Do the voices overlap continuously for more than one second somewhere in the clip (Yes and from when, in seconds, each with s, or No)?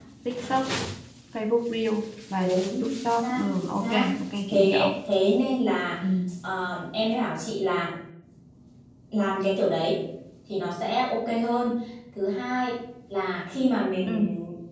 Yes, from 2.4 s